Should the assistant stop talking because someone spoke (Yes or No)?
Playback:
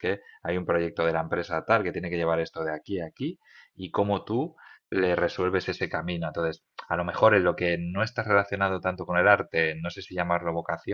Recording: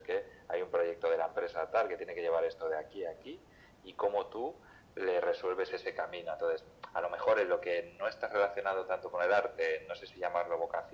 No